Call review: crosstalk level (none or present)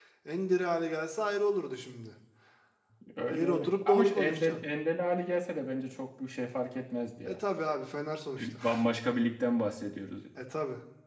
present